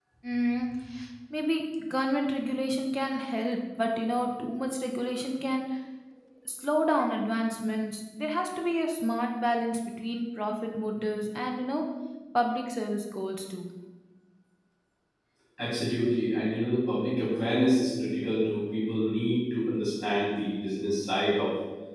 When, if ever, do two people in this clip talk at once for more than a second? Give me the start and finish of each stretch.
none

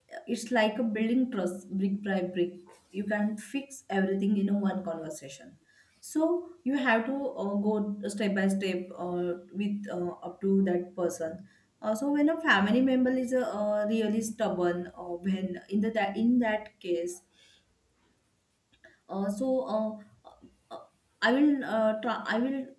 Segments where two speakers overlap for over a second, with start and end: none

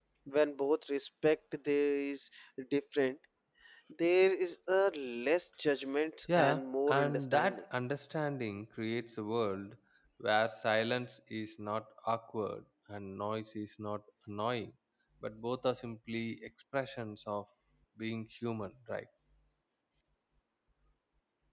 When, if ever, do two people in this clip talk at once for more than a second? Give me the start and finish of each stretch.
6.4-7.6

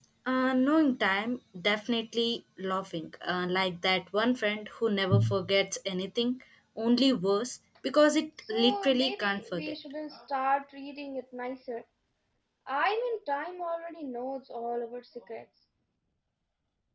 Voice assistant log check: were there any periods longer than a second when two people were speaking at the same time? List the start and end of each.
8.5-9.8

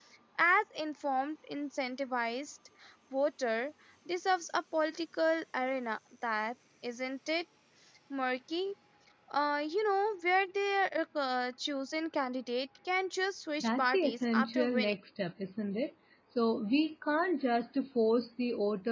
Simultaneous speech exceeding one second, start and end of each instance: 13.6-15.0

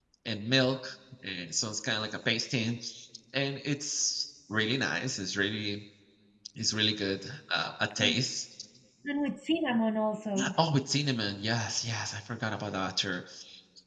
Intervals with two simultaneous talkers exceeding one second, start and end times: none

